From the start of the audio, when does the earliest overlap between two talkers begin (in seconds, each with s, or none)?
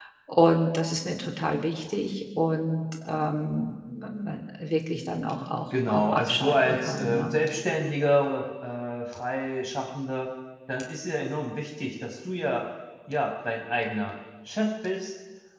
5.7 s